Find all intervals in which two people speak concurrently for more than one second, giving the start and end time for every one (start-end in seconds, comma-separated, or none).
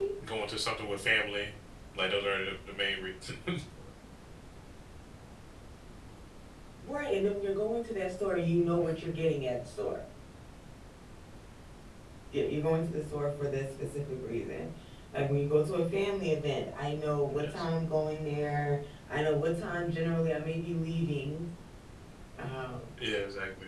none